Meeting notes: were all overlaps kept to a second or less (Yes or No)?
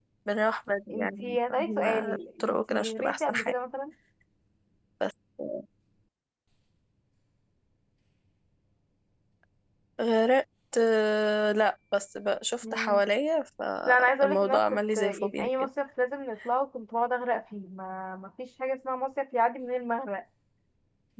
No